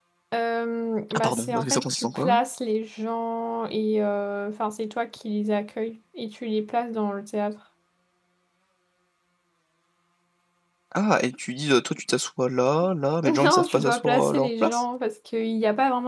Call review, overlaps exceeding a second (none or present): present